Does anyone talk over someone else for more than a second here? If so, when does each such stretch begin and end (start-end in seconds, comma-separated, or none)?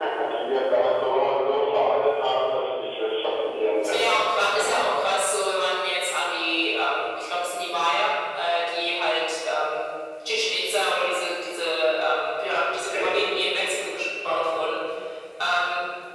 none